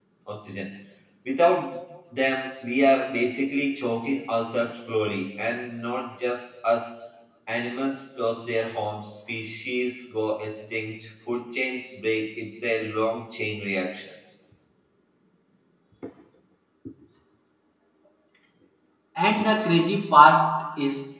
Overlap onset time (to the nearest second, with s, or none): none